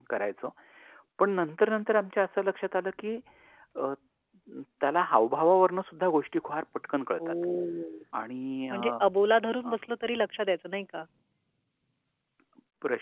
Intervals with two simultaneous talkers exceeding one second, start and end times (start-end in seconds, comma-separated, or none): none